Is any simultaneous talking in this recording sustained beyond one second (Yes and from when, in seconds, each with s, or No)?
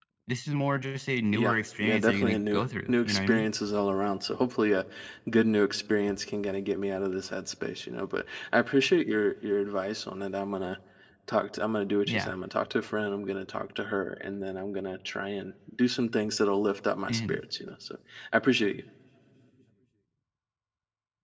Yes, from 1.3 s